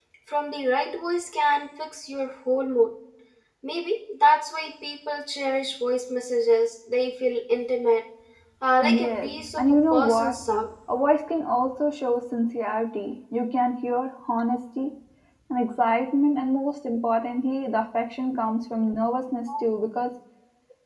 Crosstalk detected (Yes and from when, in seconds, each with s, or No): Yes, from 8.8 s